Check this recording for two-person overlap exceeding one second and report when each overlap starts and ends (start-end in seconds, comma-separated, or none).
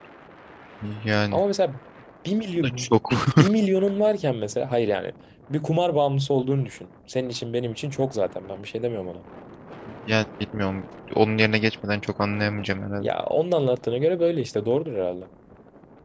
none